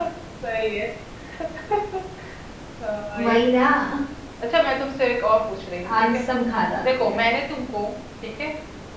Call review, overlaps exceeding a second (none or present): none